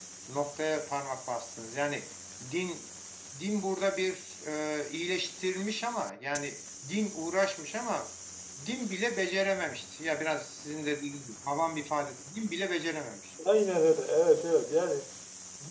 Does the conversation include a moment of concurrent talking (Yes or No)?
No